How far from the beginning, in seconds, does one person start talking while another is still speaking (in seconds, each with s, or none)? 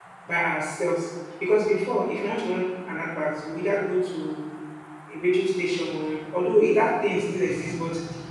none